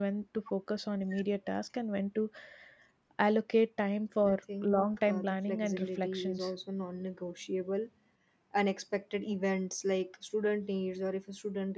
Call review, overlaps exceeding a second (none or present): present